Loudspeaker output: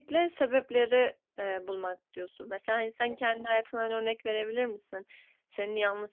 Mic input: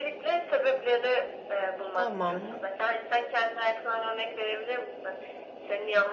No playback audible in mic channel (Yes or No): No